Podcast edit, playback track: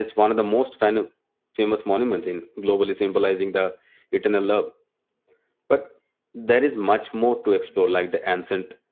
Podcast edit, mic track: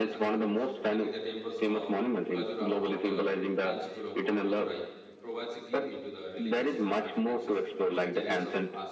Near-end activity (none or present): present